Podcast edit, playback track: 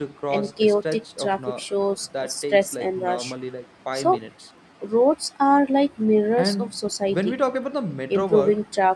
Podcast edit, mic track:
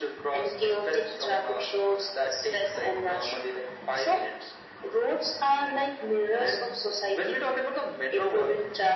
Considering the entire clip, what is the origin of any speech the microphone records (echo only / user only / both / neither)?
echo only